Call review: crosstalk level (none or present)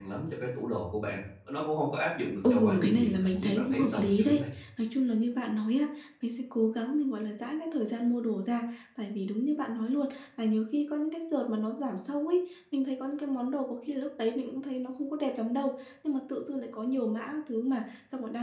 present